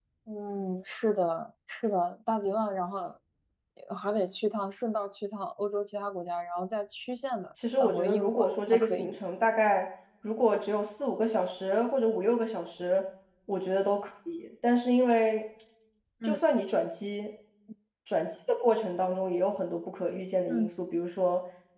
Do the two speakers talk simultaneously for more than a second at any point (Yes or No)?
Yes